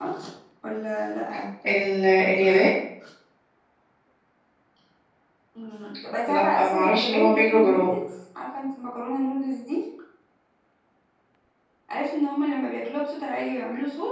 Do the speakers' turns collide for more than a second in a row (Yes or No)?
Yes